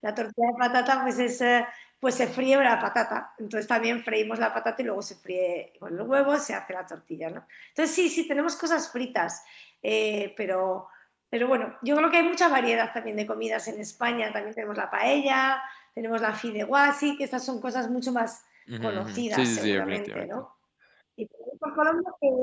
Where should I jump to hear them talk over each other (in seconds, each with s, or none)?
18.7 s